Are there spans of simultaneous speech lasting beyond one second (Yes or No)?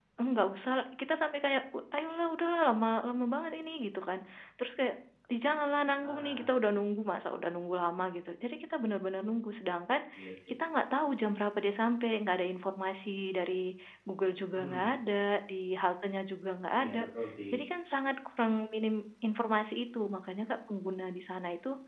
No